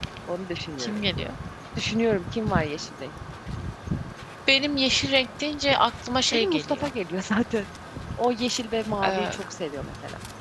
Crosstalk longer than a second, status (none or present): none